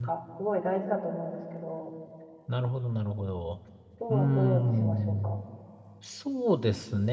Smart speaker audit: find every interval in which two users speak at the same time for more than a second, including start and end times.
4.1-5.3

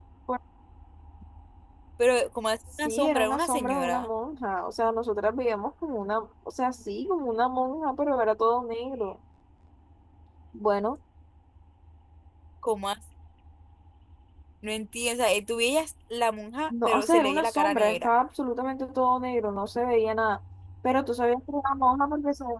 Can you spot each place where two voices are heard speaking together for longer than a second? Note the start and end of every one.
2.8-4.1, 16.7-18.1

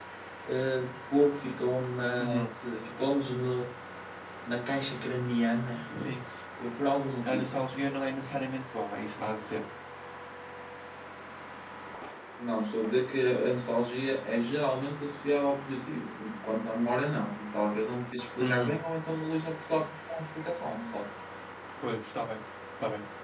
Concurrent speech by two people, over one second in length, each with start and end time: none

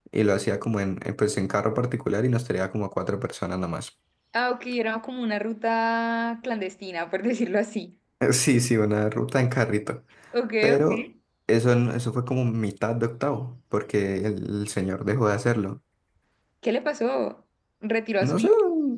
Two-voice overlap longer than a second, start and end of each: none

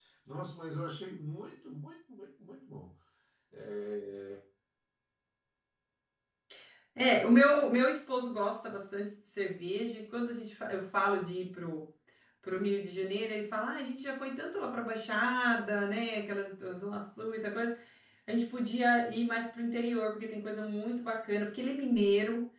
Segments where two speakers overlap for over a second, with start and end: none

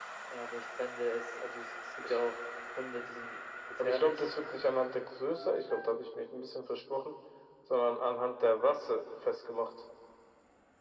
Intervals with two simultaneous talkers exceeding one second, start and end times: none

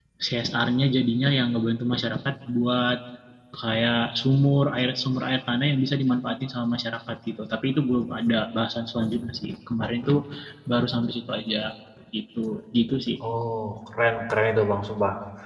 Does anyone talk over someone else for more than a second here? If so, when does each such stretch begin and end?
none

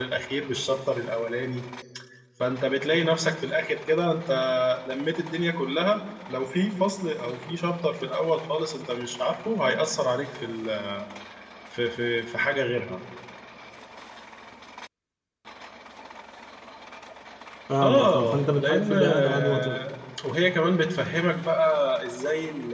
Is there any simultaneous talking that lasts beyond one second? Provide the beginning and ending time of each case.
17.8-19.8

